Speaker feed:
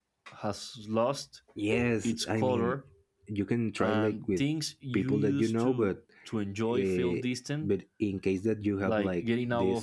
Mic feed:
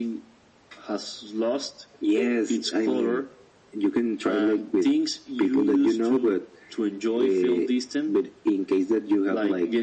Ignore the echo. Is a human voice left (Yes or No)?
No